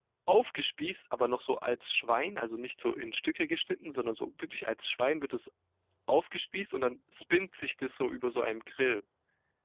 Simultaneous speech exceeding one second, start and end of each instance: none

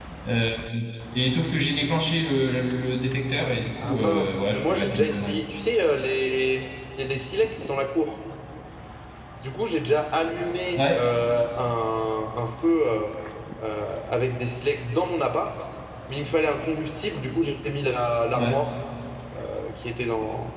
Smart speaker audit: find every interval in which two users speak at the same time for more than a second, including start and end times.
3.8-5.4

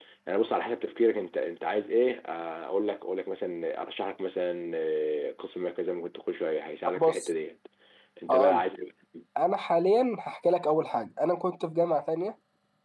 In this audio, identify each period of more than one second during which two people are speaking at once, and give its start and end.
none

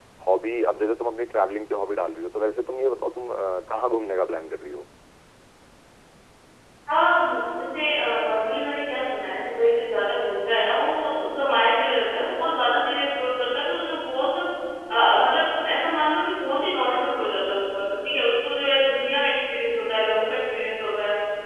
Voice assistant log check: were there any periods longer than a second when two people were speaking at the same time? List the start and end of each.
none

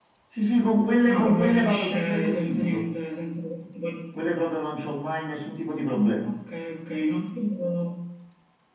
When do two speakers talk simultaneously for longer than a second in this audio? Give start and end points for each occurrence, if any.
1.1-2.8

